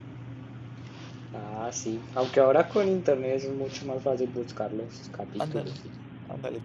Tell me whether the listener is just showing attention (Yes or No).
No